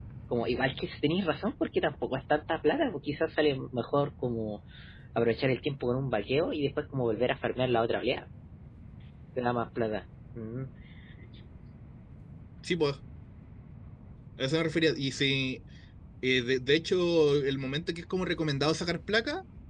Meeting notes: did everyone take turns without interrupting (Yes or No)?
Yes